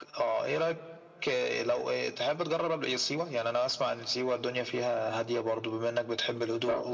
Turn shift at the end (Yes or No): No